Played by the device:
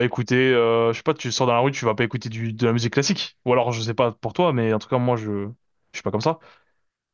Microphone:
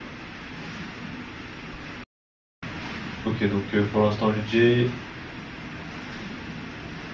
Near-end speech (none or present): present